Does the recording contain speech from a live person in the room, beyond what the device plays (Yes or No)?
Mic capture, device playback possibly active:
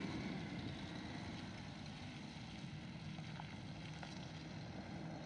No